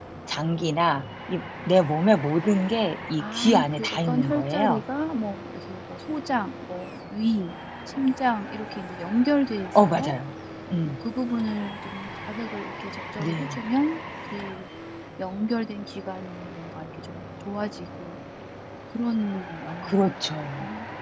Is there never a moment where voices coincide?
No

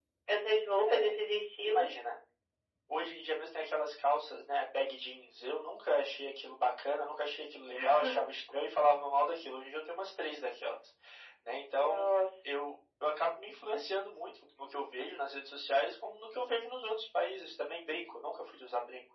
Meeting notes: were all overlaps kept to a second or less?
Yes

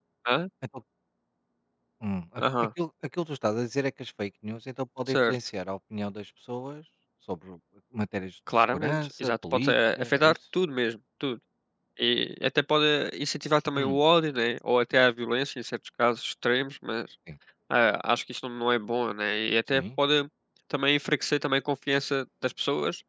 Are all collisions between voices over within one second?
No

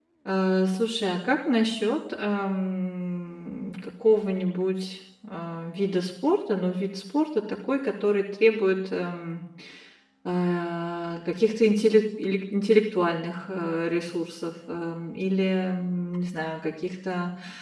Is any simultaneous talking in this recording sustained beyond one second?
No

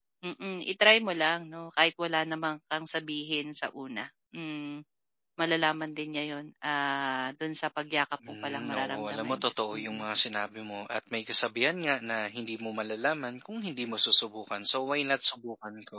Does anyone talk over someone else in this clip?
Yes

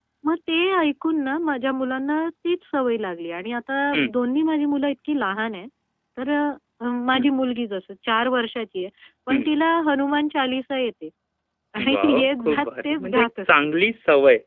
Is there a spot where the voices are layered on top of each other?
Yes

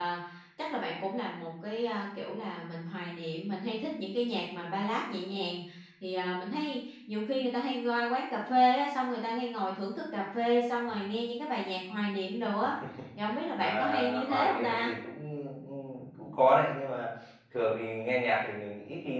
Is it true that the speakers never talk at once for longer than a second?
No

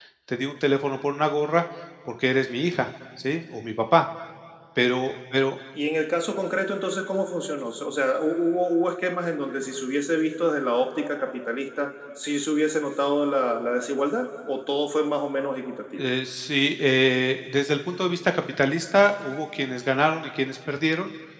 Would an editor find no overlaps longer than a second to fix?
Yes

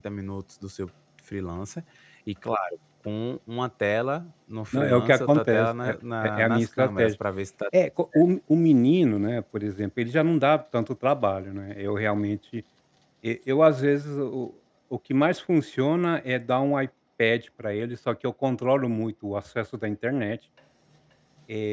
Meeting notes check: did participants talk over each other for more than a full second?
Yes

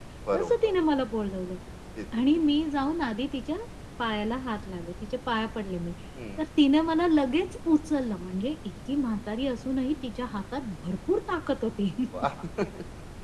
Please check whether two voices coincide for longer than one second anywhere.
No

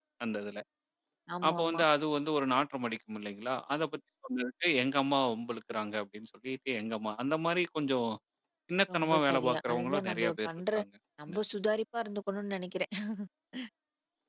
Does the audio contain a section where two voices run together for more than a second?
Yes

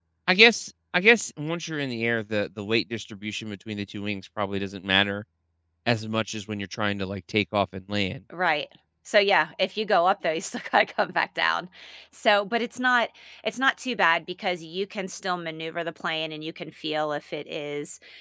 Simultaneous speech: No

